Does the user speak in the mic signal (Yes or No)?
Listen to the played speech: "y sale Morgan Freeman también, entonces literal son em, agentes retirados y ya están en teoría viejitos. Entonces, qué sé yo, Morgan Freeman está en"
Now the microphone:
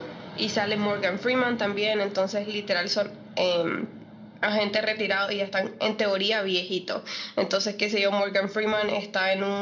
No